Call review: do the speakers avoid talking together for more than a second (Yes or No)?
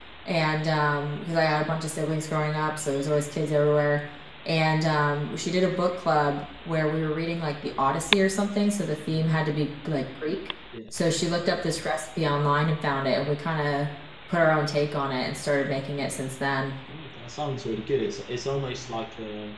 Yes